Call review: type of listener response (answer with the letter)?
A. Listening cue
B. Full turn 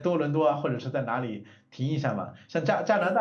A